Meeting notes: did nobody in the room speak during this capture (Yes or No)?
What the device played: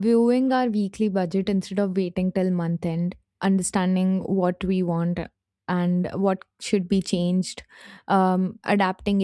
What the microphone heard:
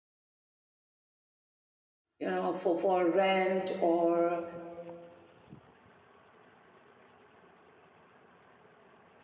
No